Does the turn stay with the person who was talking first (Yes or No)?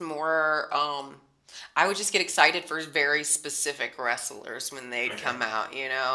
Yes